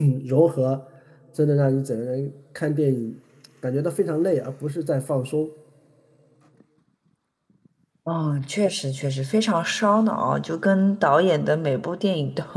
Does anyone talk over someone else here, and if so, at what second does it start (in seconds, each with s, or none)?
none